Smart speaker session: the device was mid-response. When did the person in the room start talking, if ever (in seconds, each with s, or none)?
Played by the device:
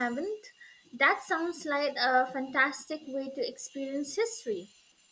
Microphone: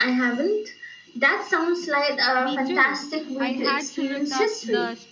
2.4 s